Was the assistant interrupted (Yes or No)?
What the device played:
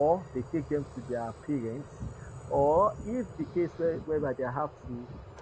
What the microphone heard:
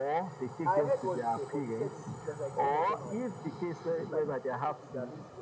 Yes